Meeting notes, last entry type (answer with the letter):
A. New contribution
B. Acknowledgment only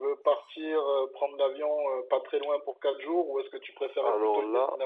B